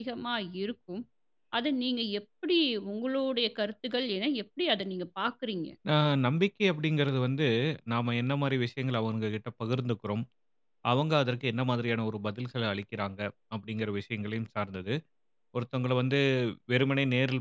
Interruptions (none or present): none